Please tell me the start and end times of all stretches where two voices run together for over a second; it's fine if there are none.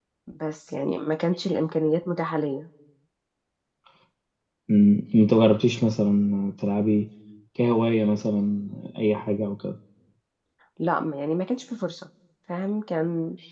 none

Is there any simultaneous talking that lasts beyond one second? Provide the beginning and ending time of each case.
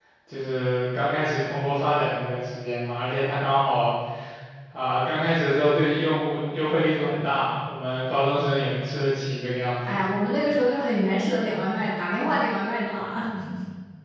none

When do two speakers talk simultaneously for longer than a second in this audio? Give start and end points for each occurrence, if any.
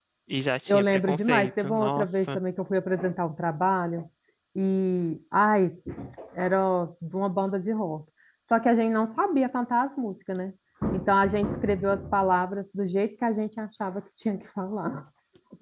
0.7-2.4

